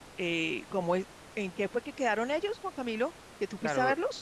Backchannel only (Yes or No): No